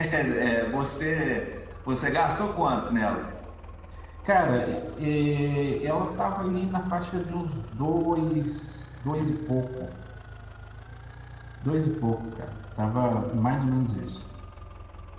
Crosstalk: none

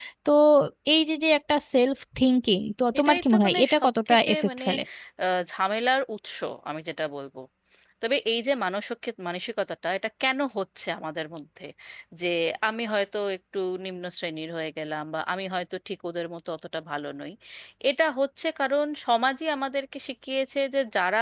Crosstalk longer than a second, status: present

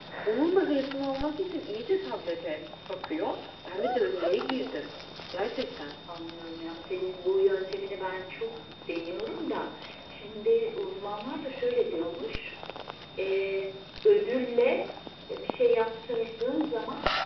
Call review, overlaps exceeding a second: none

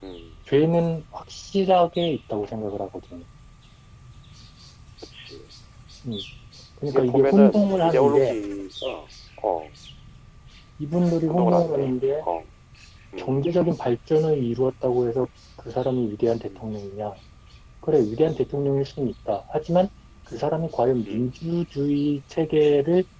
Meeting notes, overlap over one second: present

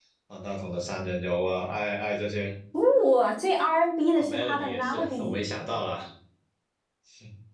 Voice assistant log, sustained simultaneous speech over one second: present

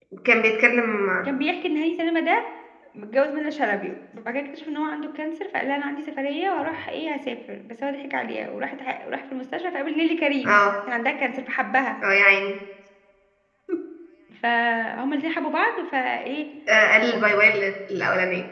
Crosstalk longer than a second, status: none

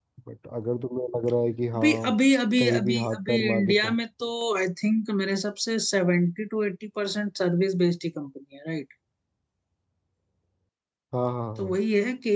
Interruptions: present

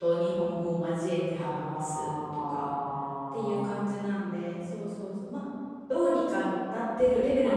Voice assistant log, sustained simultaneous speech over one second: present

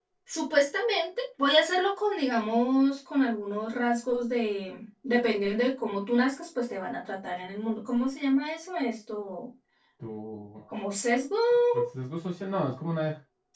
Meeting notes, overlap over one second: none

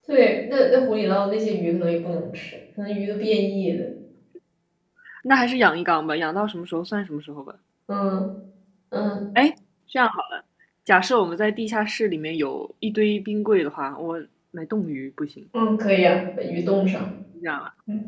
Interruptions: none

